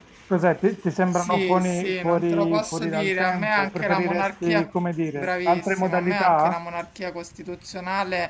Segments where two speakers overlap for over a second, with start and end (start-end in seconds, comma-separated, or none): 1.1-4.7, 5.1-6.6